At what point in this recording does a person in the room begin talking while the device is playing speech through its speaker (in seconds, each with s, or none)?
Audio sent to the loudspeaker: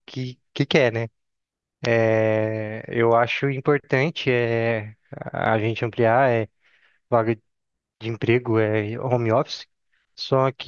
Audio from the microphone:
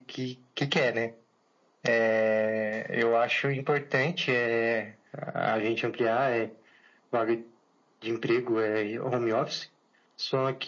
none